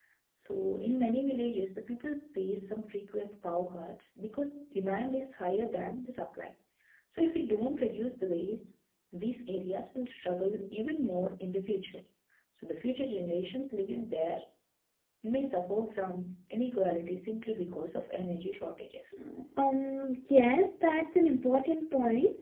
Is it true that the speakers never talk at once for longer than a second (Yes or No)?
Yes